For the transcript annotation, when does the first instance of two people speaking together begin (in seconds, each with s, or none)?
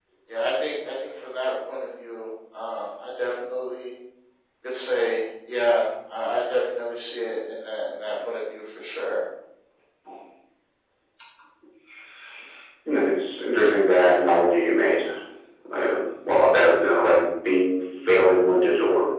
none